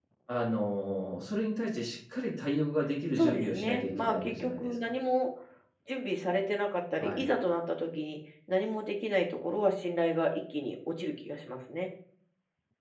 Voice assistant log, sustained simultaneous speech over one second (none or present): present